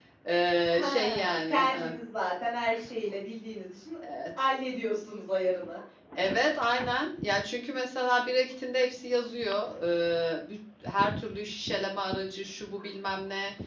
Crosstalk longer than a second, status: present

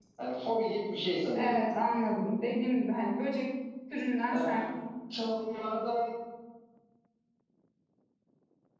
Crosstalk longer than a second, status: none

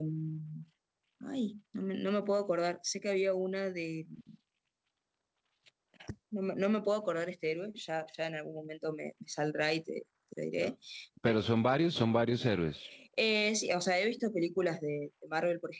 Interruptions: none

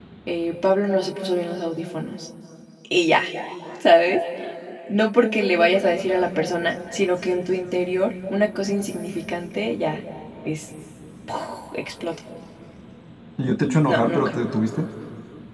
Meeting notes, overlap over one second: none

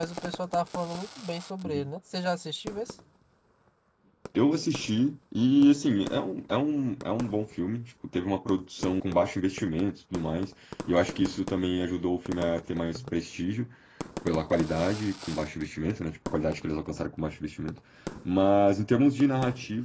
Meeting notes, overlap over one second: none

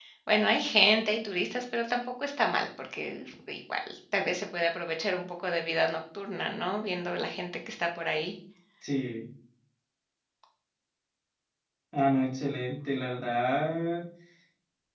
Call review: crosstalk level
none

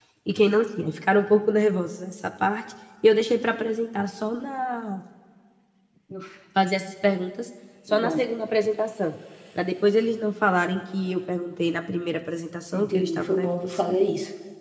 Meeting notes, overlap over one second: present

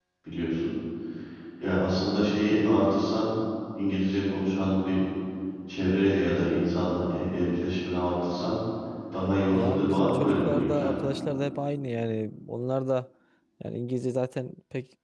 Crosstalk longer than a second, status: present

